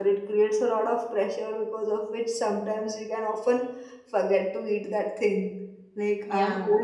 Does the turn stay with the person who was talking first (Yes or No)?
Yes